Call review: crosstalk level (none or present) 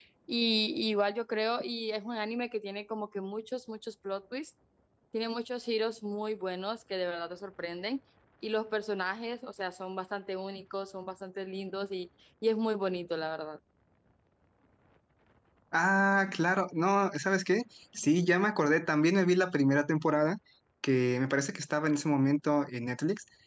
none